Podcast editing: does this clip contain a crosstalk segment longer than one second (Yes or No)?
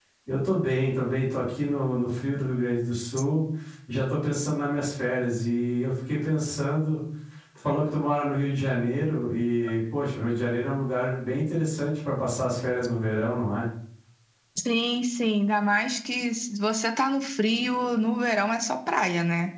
No